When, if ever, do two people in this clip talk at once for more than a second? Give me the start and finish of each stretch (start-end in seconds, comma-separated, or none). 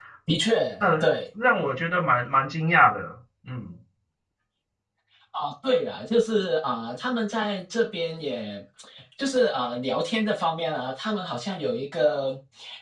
none